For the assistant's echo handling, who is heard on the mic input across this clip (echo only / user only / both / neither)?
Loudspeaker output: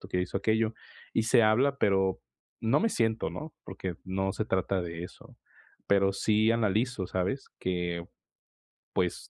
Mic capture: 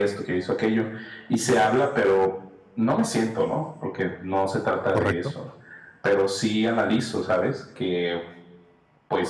both